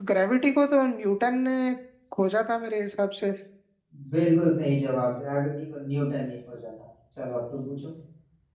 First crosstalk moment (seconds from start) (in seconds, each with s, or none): none